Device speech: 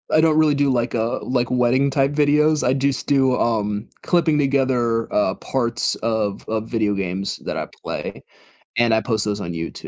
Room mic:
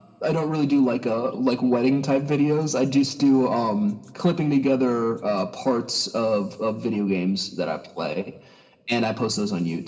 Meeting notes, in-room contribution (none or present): none